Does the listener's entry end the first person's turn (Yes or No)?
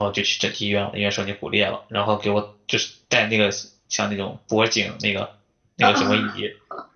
No